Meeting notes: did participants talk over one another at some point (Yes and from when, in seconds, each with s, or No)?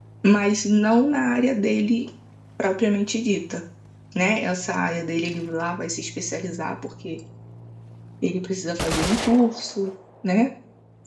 No